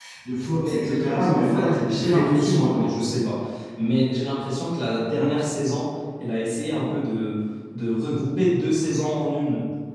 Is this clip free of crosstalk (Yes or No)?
No